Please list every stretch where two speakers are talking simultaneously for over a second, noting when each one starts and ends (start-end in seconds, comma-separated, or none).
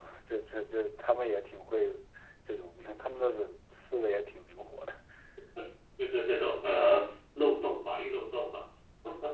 none